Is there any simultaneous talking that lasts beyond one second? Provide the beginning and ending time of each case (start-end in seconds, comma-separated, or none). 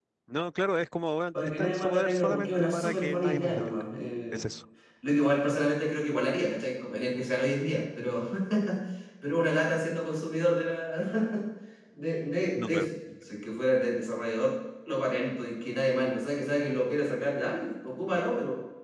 1.3-3.8